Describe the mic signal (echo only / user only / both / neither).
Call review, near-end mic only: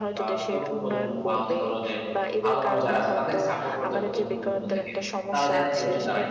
both